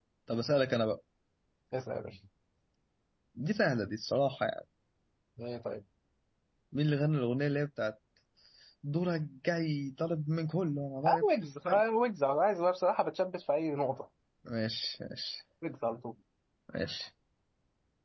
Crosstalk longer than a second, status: none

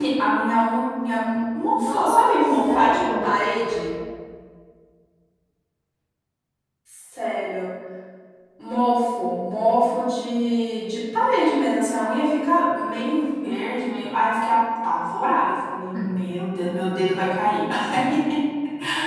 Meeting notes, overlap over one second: present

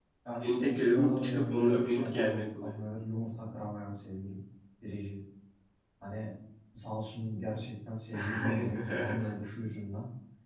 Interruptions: present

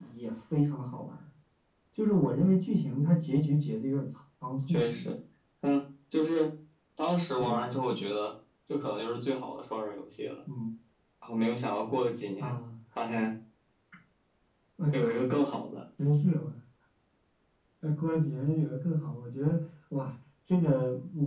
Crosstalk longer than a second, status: none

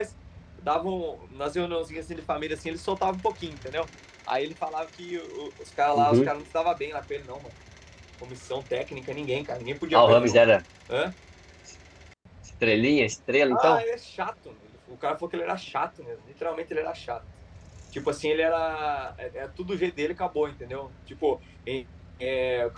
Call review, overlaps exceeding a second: none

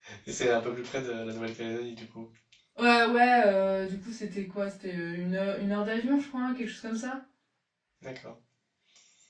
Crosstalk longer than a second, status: none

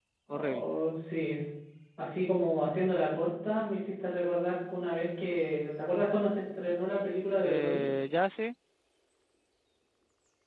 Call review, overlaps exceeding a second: none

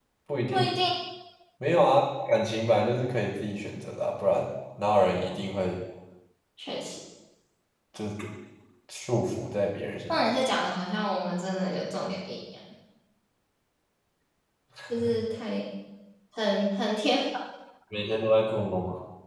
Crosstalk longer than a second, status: none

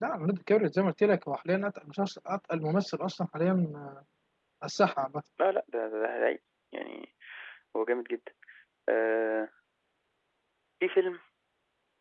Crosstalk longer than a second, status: none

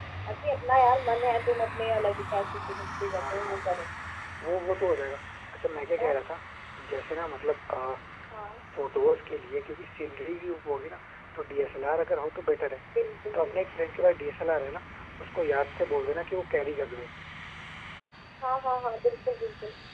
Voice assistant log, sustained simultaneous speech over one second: none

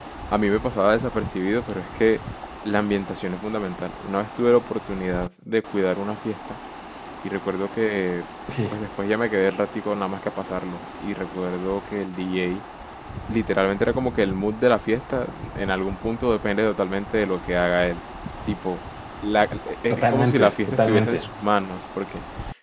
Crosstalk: present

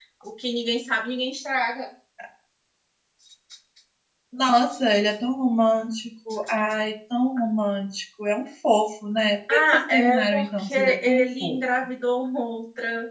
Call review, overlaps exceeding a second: present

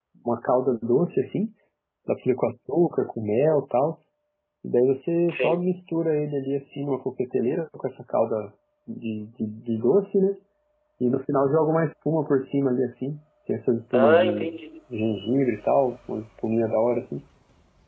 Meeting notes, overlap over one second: none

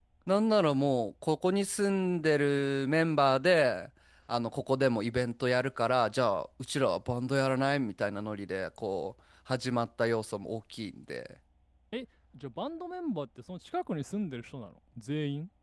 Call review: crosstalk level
none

